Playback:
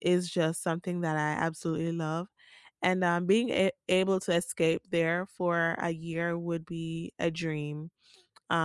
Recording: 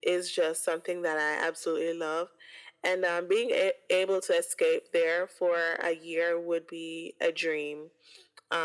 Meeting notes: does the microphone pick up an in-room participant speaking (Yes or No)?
No